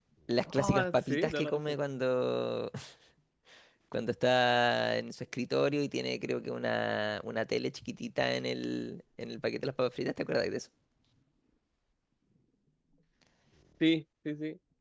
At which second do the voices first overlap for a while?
1 s

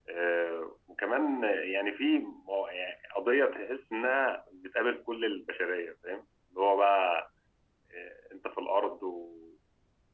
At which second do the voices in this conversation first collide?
none

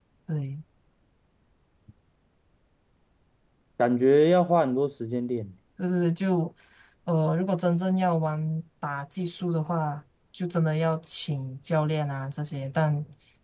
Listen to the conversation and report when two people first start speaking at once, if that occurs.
none

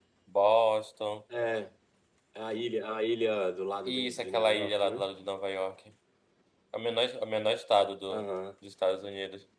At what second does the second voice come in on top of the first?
4 s

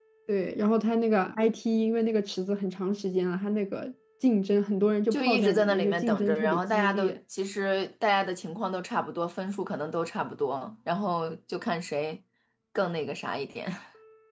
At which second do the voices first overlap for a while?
5 s

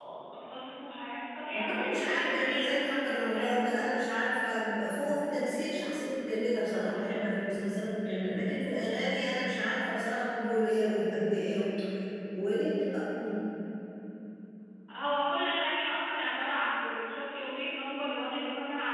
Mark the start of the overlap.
2 s

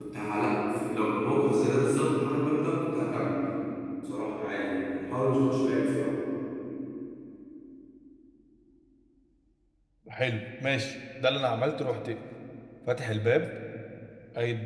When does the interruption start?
none

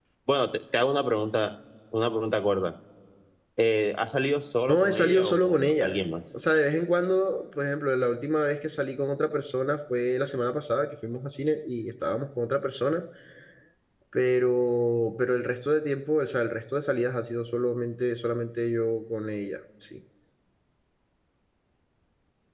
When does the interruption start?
5 s

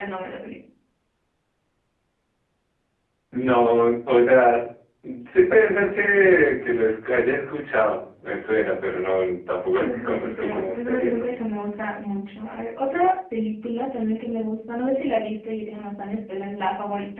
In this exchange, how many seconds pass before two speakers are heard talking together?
10 s

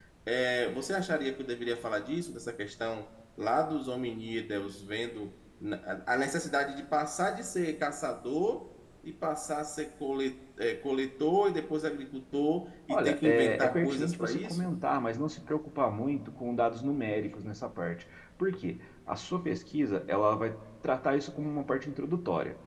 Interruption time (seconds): 13 s

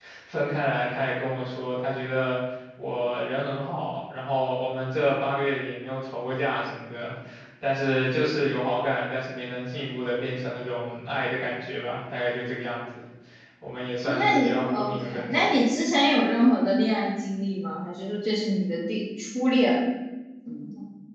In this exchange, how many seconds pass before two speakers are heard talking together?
14 s

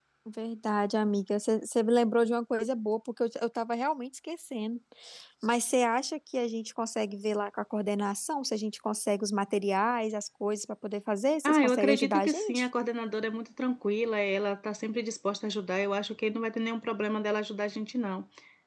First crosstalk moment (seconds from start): 11 s

